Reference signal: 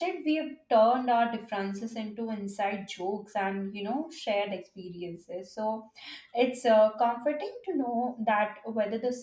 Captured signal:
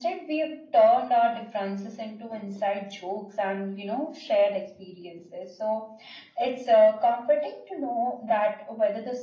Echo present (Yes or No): Yes